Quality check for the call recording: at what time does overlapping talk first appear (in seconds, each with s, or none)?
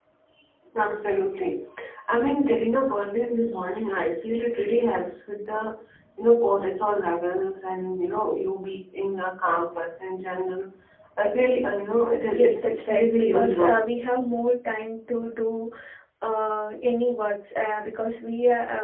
12.3 s